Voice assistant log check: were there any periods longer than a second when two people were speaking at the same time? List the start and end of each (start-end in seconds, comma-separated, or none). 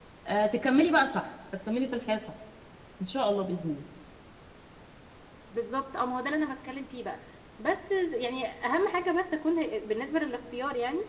none